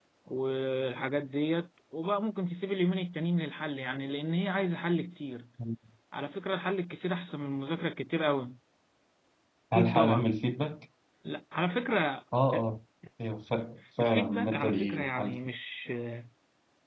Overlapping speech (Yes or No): Yes